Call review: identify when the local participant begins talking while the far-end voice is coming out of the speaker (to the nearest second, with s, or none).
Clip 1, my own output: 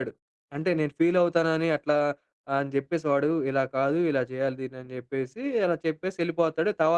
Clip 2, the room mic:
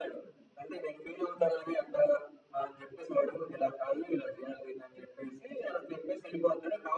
none